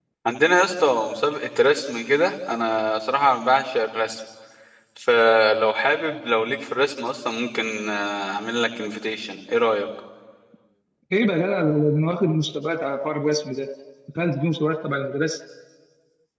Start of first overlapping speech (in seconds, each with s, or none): none